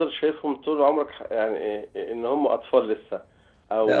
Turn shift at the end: No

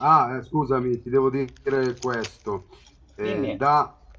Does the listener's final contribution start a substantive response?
No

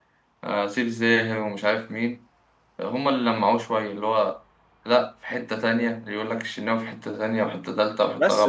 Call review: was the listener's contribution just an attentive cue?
No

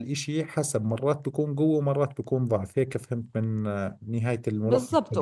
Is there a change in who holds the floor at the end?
Yes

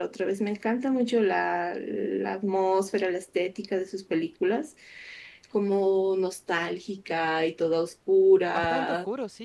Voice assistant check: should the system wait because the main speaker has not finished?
No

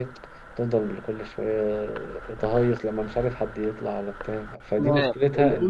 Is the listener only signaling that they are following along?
No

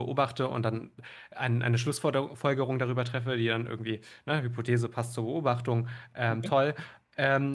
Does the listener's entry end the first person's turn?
No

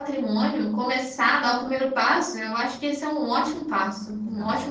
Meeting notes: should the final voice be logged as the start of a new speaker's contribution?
Yes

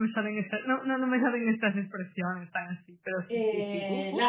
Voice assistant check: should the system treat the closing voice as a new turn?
Yes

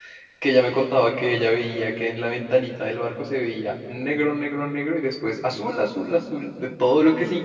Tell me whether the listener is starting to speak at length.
No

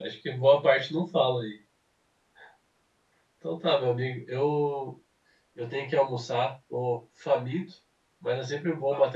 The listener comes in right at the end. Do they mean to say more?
No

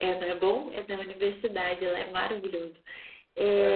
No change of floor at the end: Yes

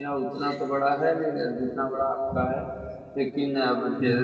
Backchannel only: Yes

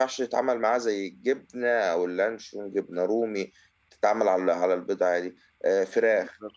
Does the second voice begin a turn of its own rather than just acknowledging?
No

